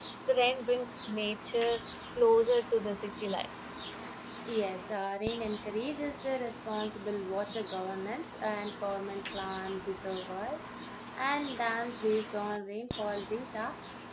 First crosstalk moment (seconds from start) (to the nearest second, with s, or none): none